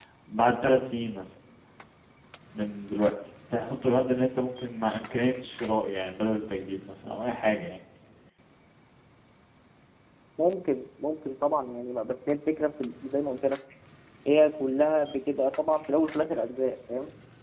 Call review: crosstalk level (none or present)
none